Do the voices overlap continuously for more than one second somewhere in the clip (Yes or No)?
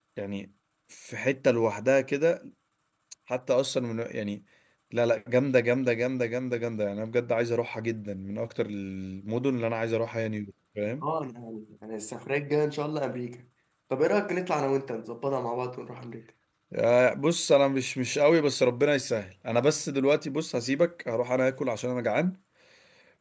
No